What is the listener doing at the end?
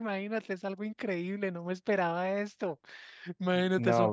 listening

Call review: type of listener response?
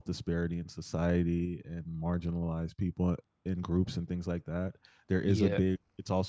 listening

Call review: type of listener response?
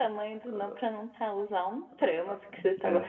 listening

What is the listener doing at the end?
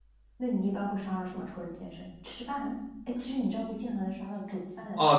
taking over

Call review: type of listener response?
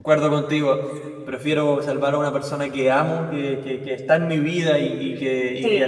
listening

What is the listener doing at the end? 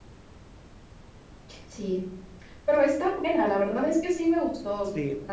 taking over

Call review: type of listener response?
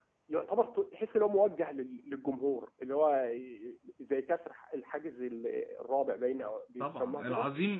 taking over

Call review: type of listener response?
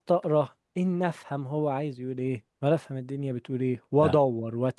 listening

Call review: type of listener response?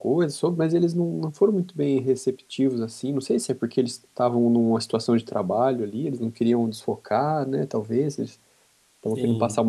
listening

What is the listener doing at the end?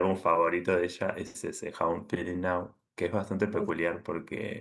listening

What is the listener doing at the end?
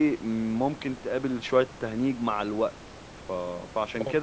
listening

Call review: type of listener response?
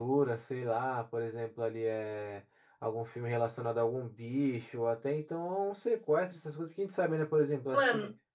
listening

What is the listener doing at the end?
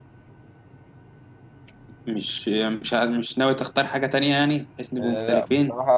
taking over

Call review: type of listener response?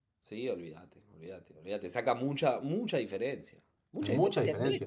taking over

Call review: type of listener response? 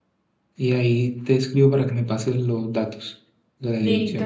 taking over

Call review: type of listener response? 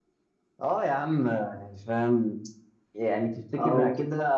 listening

